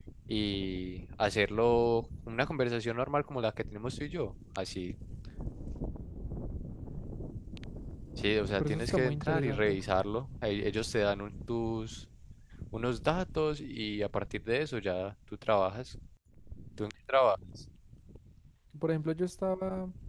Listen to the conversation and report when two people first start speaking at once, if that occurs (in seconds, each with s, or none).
8.6 s